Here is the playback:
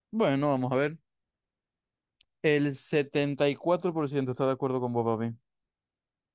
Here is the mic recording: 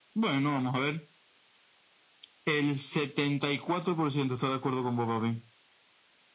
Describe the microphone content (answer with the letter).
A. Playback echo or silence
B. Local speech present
A